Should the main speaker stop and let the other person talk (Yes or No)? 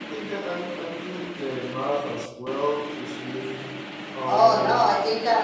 Yes